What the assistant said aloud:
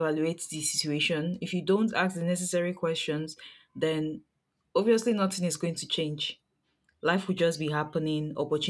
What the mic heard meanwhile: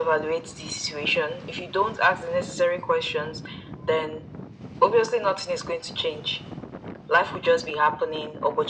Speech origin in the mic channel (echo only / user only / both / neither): echo only